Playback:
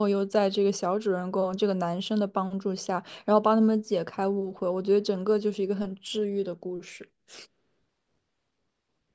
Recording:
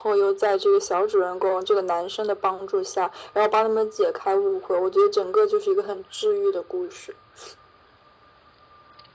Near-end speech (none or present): none